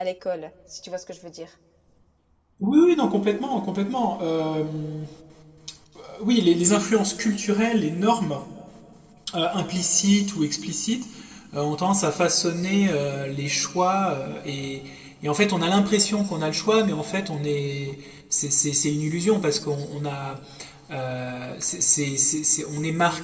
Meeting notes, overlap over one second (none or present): none